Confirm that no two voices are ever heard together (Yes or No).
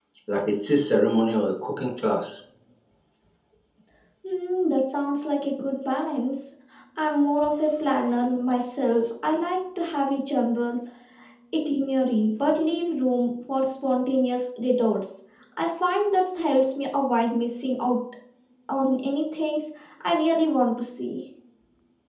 Yes